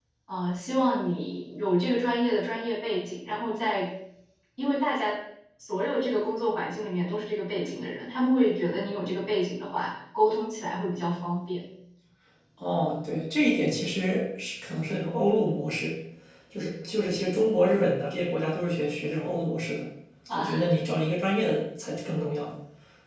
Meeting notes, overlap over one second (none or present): none